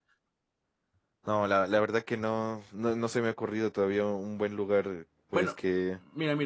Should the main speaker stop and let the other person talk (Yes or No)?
Yes